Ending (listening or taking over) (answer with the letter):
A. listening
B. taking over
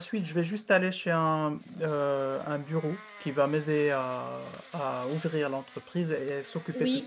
B